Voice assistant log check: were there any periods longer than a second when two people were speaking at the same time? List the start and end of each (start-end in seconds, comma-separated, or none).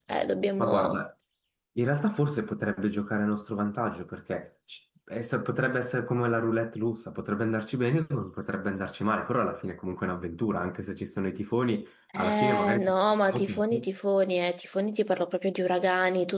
12.2-13.9